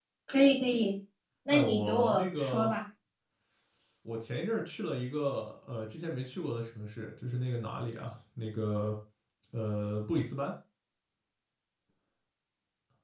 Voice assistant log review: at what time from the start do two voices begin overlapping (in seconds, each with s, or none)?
1.5 s